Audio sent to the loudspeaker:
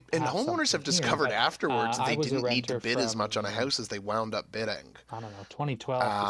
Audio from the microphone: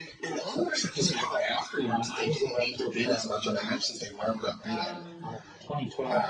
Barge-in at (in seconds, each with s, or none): 4.6 s